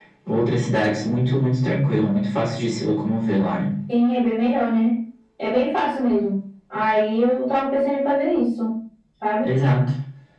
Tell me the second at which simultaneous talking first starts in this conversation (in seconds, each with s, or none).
none